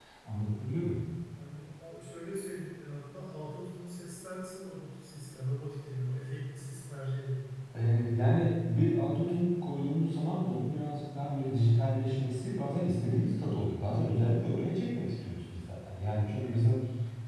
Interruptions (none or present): none